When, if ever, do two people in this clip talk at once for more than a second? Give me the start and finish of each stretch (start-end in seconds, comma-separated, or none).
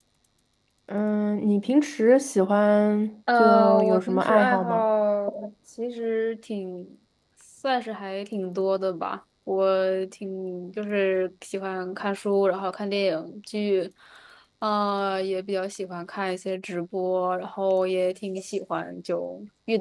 3.4-4.7